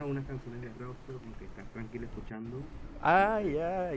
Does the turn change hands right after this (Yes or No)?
Yes